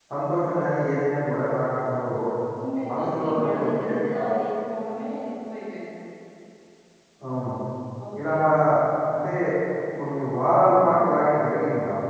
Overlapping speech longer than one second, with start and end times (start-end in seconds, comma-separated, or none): 2.9-4.3